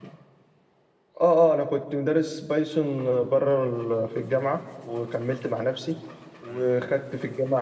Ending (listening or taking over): listening